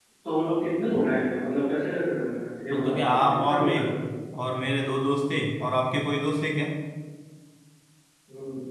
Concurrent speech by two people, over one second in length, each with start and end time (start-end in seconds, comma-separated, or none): 2.7-3.9